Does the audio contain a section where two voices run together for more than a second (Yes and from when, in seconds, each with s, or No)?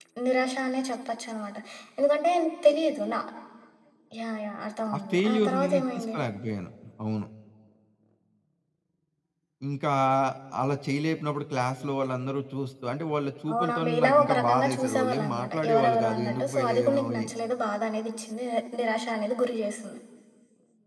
Yes, from 4.9 s